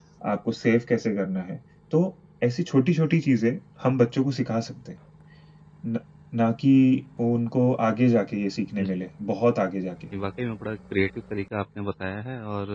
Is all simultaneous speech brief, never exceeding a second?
Yes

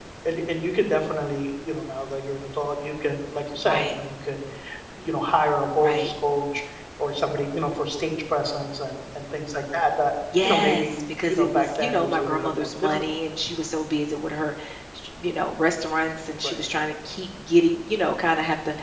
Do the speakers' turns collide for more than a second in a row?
Yes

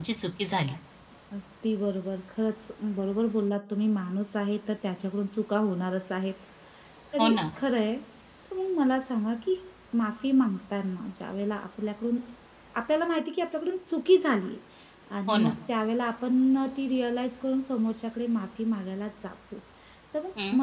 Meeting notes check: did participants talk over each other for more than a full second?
No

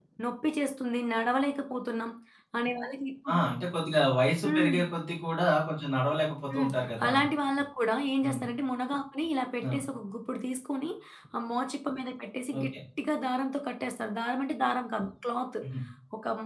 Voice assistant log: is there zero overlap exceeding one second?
Yes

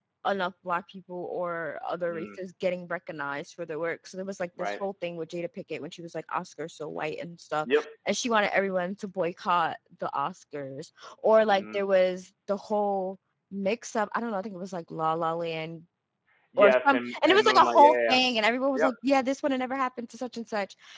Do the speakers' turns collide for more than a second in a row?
Yes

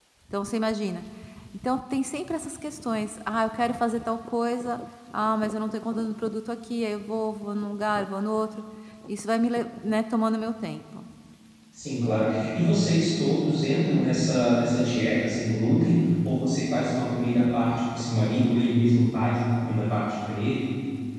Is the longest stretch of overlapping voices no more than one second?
Yes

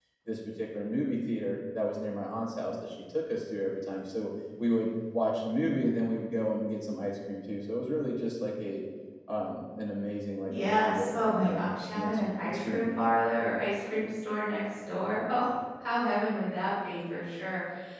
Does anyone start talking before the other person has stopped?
Yes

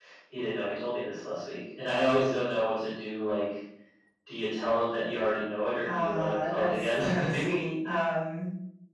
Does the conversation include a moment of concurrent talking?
Yes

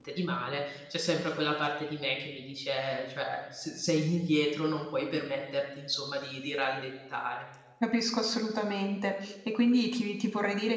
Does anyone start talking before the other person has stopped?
No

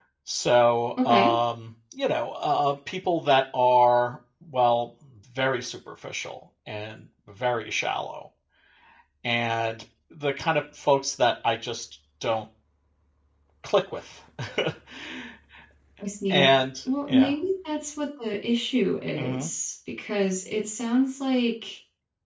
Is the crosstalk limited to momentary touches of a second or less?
Yes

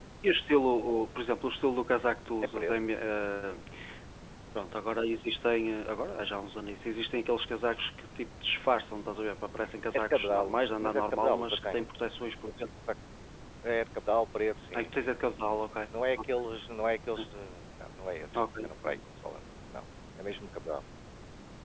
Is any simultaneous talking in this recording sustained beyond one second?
Yes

